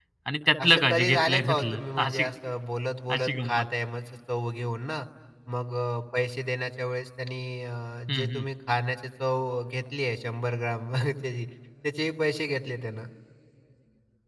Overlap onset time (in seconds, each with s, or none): 0.6 s